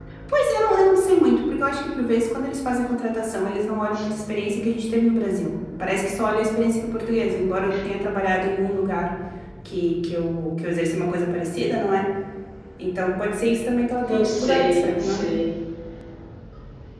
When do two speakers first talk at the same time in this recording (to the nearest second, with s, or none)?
14 s